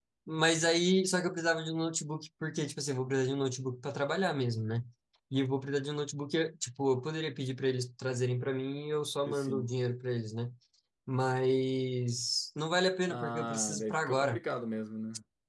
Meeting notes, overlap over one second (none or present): present